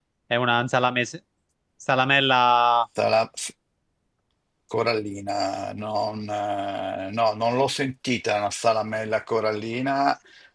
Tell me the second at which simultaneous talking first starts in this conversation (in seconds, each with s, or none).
none